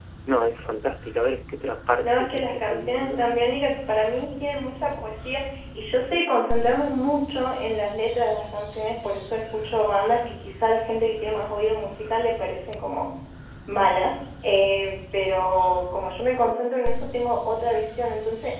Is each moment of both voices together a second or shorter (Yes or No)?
No